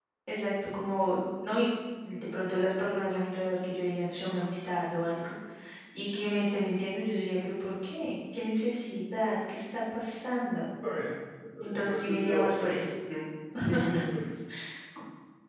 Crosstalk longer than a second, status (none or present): present